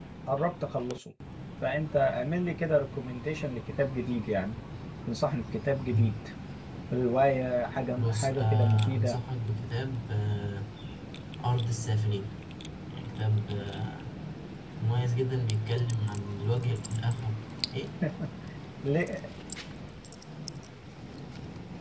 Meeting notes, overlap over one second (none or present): present